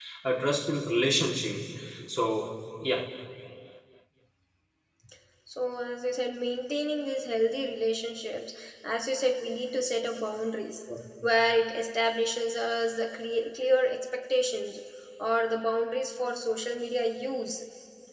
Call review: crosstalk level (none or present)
none